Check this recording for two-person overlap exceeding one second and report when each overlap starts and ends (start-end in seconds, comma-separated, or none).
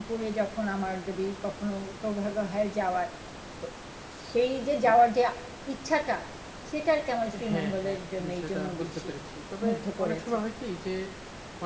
7.5-9.1